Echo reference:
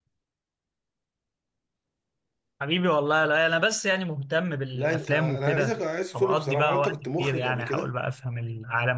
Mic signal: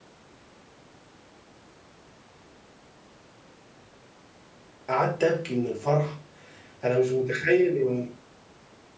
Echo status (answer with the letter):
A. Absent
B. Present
A